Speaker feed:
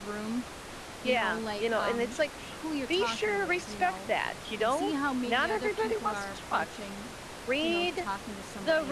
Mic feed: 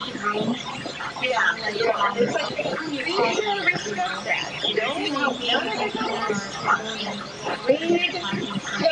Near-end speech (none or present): present